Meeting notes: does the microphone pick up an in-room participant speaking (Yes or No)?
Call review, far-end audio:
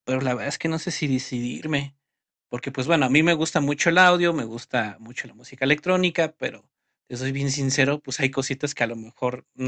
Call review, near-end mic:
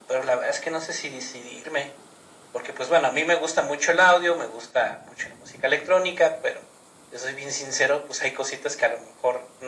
No